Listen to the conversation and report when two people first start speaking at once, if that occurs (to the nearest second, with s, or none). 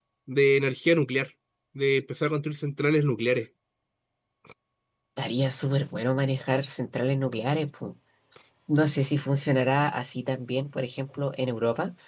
none